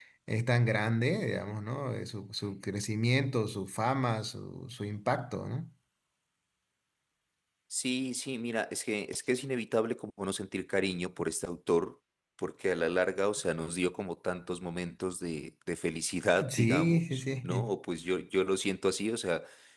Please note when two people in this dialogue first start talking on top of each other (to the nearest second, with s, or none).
16 s